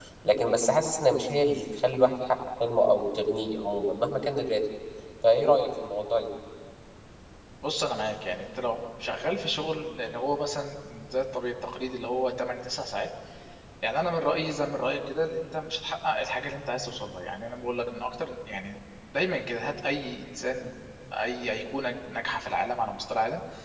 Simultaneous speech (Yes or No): No